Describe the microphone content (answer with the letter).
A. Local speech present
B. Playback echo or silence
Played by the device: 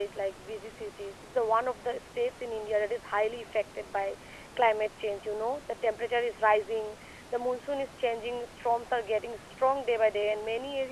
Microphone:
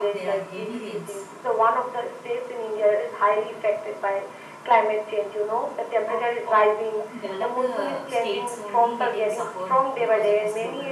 A